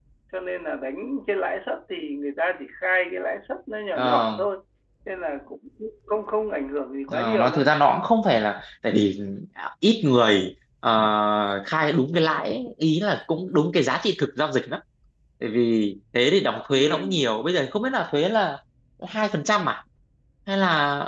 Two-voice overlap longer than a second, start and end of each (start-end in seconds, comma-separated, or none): none